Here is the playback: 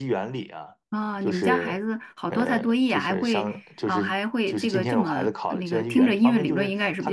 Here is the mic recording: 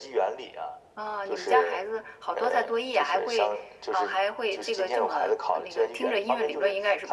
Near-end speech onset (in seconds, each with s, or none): none